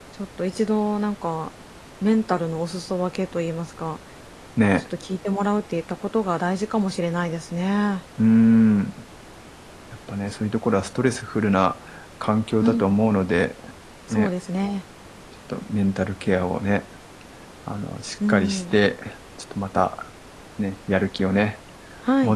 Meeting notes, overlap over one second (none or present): none